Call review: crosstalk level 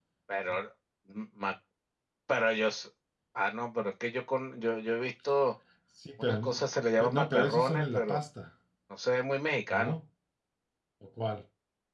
present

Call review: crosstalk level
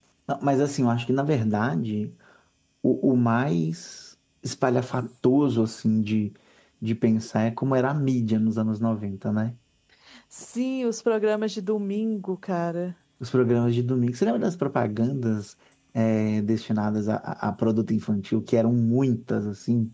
none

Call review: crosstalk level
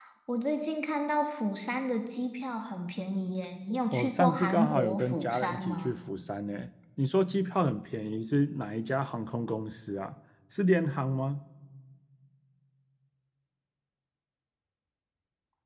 present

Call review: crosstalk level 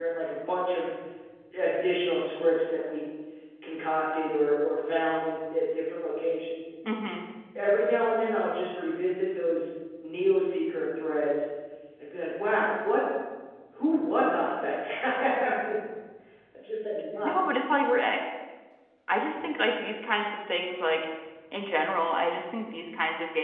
none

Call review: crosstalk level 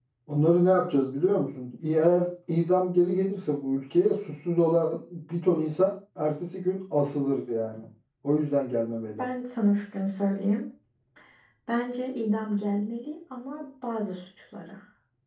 none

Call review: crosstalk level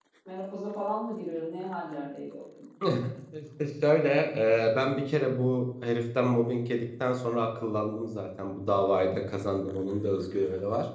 none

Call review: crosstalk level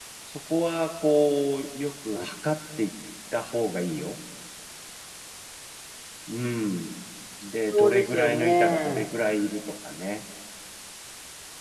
present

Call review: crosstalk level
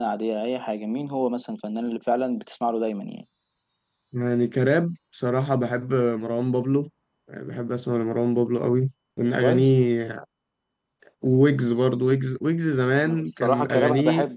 present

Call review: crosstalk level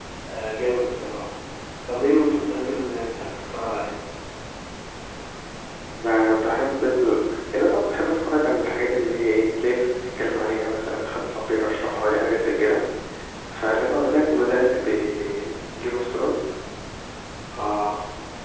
none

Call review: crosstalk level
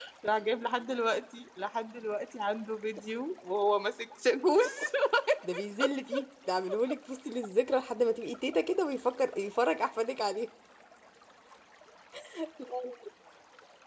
none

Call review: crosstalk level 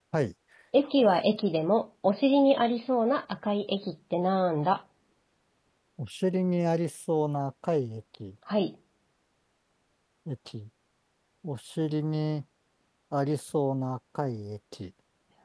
none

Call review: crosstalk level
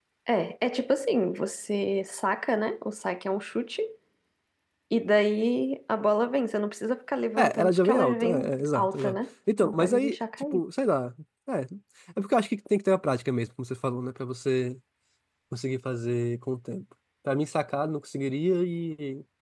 present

